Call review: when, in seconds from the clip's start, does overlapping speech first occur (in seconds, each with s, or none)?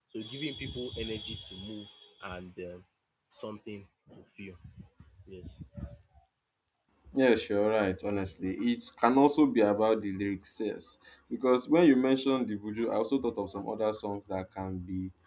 none